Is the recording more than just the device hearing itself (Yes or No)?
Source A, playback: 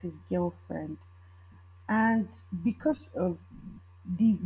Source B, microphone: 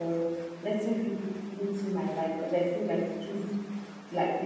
Yes